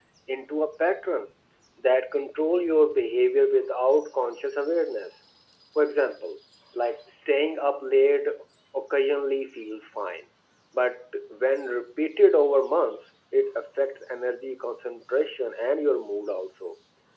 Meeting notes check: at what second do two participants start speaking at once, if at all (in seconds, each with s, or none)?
none